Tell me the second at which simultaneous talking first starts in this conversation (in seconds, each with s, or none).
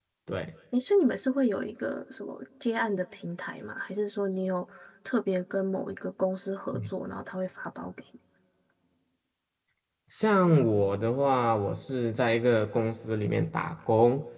none